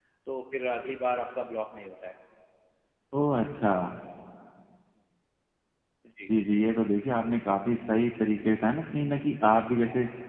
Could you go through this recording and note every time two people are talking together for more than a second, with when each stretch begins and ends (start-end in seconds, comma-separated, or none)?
none